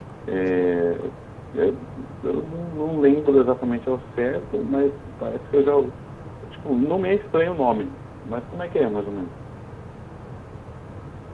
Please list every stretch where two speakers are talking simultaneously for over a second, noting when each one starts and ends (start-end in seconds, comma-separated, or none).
none